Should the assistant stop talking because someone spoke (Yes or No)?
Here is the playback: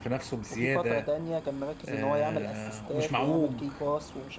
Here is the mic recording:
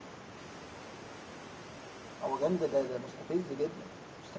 Yes